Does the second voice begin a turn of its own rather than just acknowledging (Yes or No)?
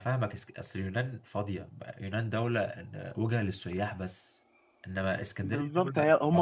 Yes